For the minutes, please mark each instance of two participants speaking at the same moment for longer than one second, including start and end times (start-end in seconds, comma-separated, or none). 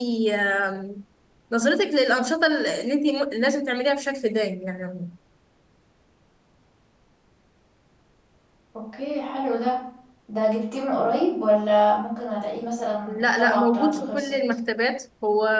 13.1-14.3